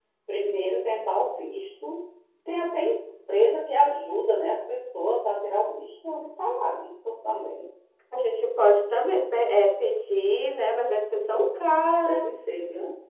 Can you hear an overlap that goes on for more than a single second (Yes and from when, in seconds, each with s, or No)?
No